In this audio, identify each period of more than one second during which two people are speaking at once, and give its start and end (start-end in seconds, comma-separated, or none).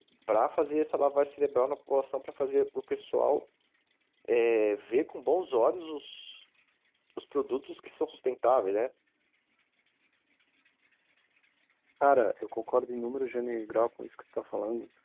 none